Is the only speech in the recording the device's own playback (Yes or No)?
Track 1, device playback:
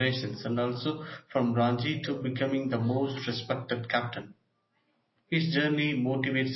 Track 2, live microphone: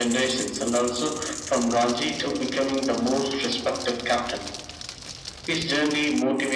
Yes